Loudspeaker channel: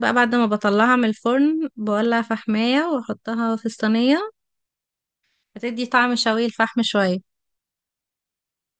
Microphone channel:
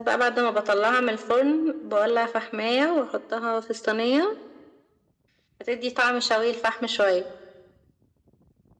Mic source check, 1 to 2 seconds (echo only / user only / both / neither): echo only